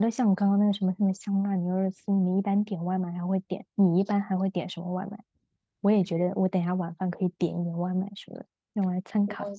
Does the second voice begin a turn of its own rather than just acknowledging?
Yes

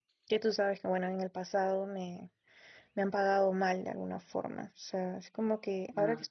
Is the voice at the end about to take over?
No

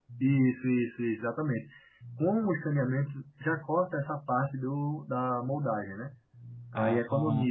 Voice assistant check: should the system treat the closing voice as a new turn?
No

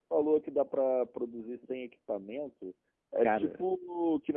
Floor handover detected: No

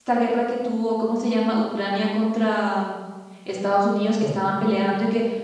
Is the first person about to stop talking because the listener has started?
No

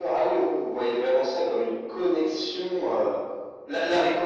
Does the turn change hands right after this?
No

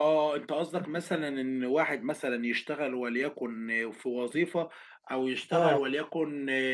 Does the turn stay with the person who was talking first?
Yes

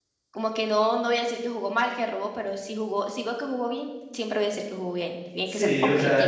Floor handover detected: Yes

